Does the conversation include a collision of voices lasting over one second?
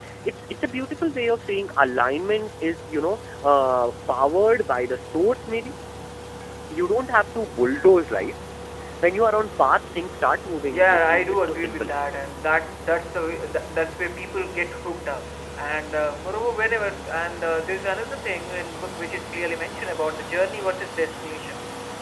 Yes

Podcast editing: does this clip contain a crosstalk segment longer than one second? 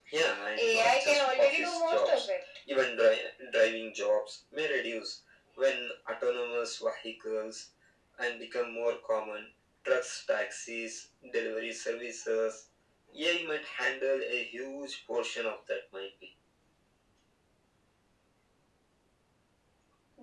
Yes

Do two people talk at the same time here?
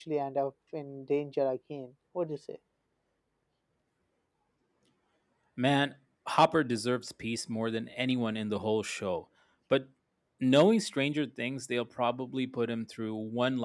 No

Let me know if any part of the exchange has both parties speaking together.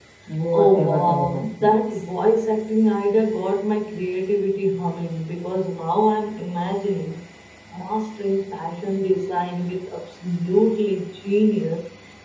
Yes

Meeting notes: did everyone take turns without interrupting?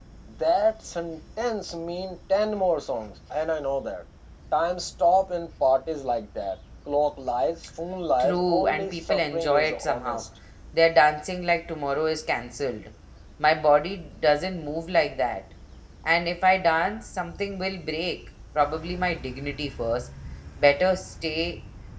No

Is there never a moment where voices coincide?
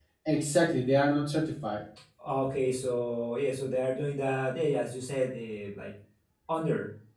Yes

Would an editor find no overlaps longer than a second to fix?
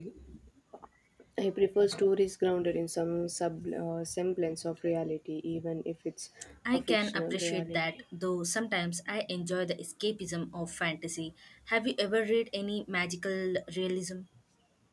No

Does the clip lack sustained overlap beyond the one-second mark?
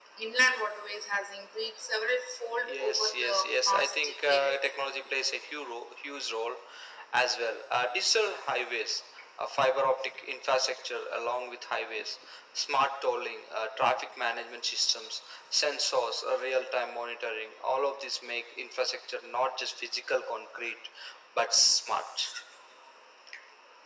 No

